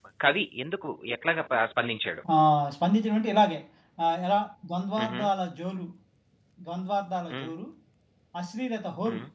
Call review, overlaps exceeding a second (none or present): none